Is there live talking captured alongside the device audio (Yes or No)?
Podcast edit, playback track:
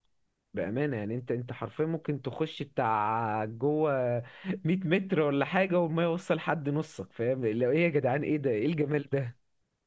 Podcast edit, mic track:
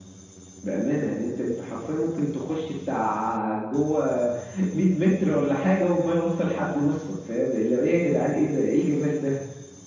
No